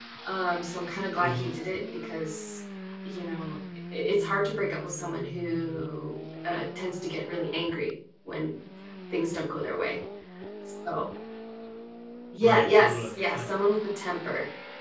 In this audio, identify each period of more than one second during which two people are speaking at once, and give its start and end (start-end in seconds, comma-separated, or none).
12.4-13.7